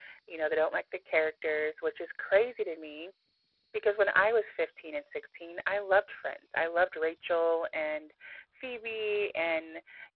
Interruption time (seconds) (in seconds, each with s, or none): none